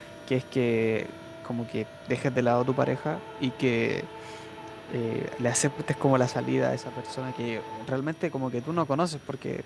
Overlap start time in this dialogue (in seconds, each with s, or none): none